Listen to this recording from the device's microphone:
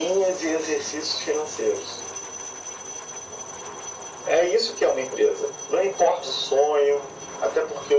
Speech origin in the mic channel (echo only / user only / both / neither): echo only